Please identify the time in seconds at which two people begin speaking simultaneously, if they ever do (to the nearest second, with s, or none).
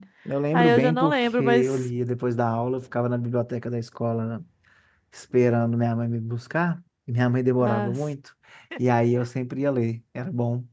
1 s